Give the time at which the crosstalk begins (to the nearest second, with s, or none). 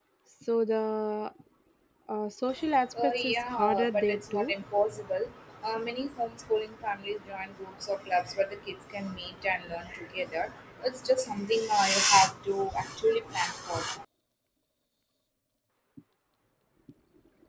3 s